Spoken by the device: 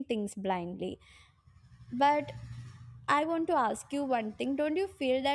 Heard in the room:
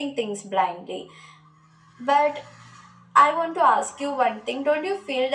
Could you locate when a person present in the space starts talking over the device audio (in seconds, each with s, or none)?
none